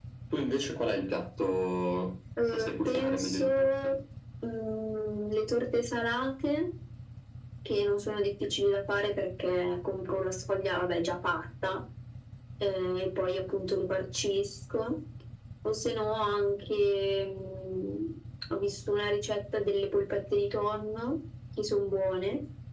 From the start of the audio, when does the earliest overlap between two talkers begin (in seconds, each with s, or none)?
2.4 s